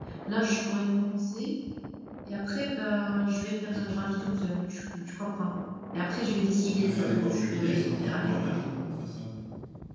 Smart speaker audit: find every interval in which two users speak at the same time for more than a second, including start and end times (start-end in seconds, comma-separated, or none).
6.6-8.4